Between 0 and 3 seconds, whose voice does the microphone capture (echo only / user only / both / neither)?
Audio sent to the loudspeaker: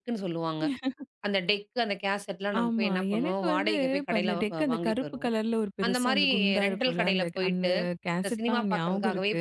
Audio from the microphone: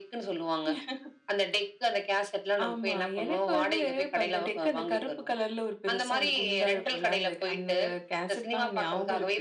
echo only